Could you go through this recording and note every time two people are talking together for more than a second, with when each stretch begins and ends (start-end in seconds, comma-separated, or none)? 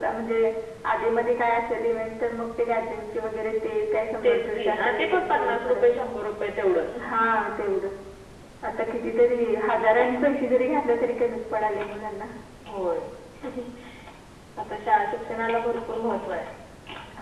4.2-6.0